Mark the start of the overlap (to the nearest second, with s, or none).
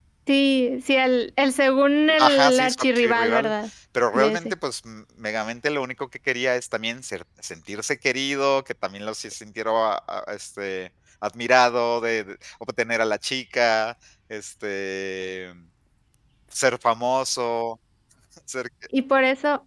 2 s